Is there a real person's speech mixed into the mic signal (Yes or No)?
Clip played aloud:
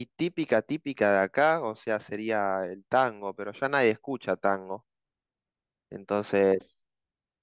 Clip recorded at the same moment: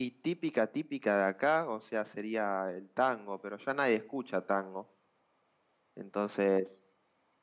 No